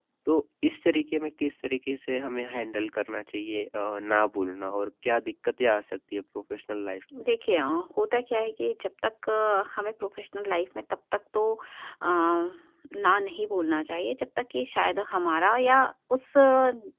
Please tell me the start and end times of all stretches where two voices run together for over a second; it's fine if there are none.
none

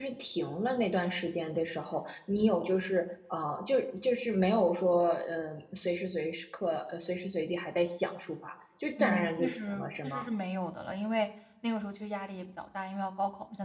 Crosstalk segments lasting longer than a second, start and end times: 9.0-10.3

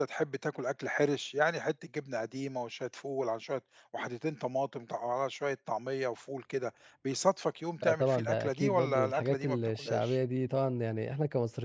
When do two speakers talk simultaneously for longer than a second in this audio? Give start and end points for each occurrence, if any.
7.8-10.2

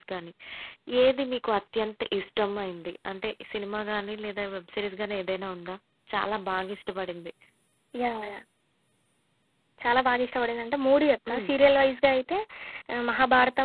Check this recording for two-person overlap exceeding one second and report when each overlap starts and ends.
none

